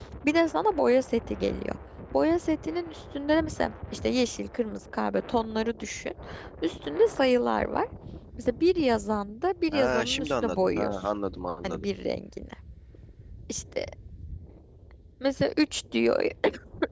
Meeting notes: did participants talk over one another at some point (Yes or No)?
Yes